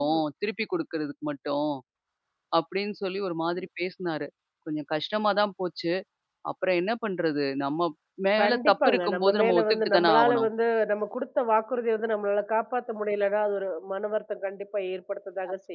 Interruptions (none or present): present